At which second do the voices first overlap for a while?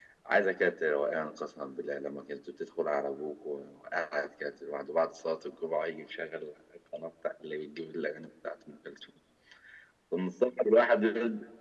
none

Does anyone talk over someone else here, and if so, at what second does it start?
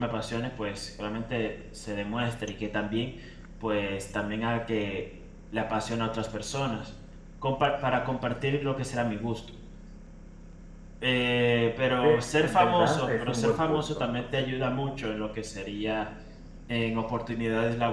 12.0 s

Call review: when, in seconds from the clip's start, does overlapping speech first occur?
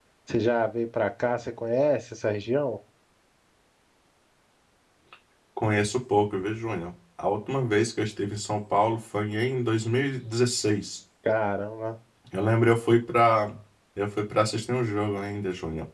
none

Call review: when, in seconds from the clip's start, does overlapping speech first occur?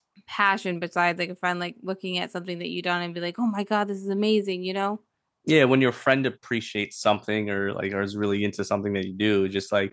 none

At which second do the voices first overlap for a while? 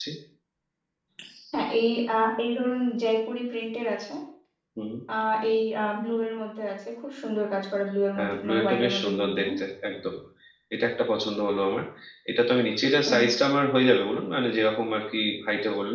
8.2 s

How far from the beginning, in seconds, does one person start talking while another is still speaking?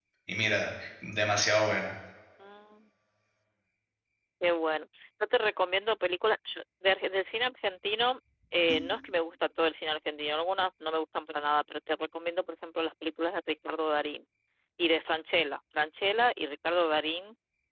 none

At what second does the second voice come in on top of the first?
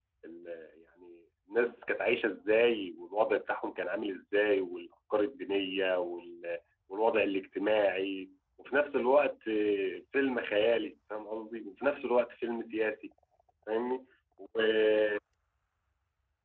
none

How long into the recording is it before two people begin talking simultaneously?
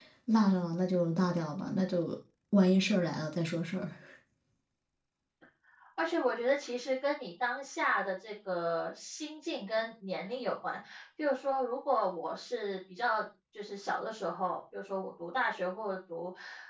none

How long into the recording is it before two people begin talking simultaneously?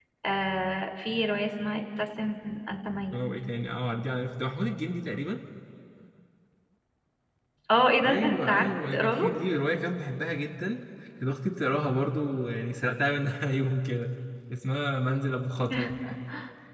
8.0 s

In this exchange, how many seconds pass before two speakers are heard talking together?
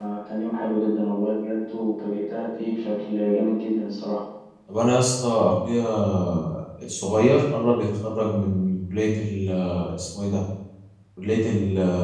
none

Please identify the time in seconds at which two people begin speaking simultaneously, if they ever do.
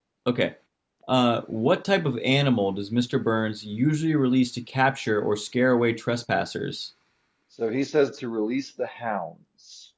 none

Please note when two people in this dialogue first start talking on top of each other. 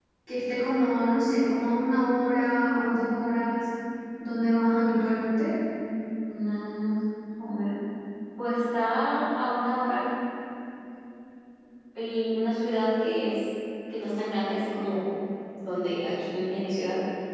none

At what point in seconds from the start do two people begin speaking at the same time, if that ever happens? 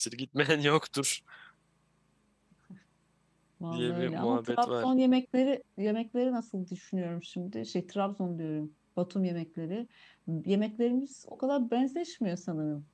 3.7 s

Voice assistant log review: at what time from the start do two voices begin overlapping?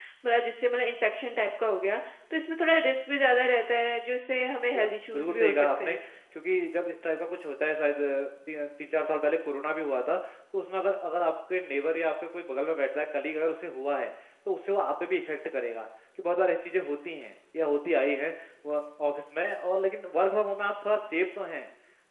4.7 s

